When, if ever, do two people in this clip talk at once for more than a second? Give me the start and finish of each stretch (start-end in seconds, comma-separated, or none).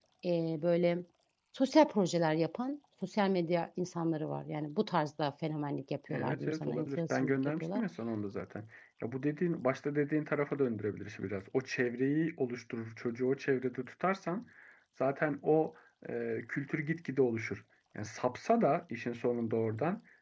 6.1-7.8